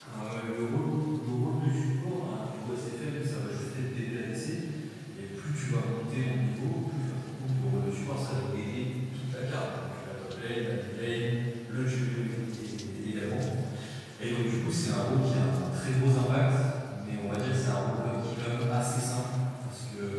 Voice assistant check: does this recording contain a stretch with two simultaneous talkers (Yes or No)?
No